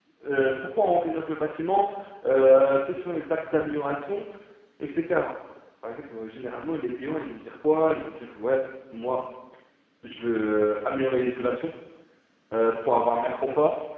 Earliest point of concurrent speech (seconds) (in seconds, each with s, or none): none